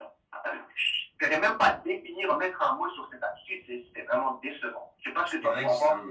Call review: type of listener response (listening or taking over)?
taking over